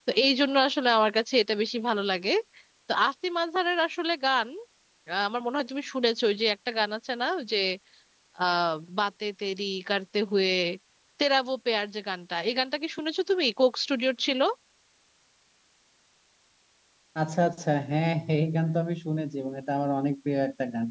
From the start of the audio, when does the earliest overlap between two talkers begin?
none

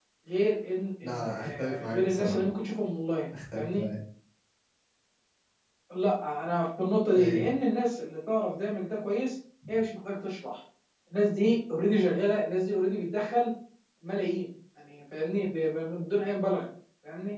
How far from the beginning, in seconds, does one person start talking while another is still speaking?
1.0 s

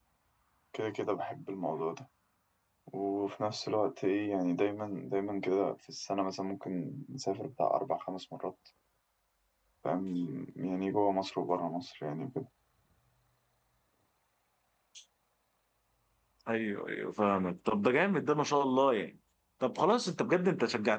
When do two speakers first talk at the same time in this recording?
none

